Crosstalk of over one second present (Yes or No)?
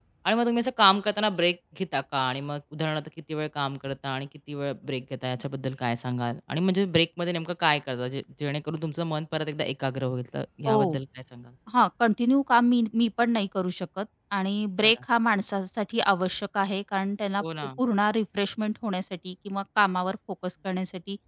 No